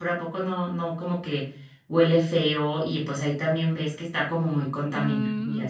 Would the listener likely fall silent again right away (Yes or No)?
No